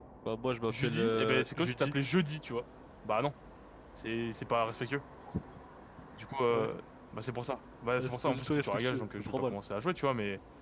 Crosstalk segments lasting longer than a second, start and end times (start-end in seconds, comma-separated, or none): 0.7-1.9, 8.0-9.5